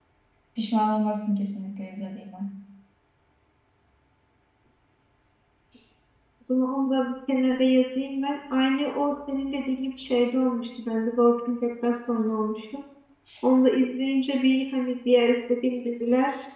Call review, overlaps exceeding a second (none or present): none